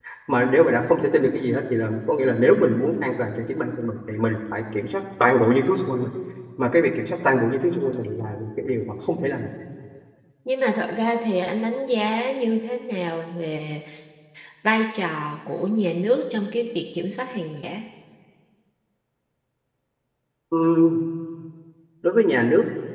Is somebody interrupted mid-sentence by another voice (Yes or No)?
No